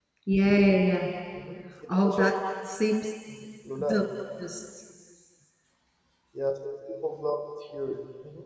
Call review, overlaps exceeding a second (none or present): none